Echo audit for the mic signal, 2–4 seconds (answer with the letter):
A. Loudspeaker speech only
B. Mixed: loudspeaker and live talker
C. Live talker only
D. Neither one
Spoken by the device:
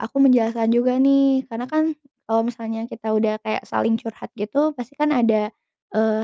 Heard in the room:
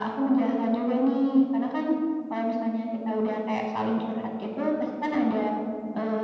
A